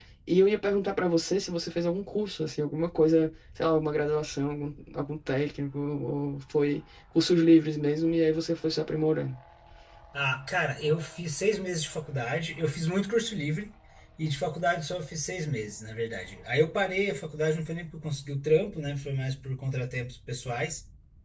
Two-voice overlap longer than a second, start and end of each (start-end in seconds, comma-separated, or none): none